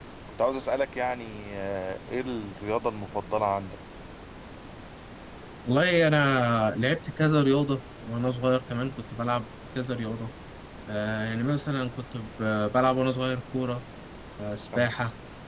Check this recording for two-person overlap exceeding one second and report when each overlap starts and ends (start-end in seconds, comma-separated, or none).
none